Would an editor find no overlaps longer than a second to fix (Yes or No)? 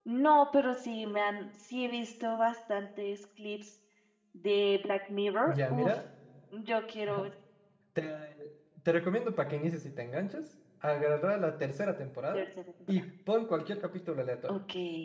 Yes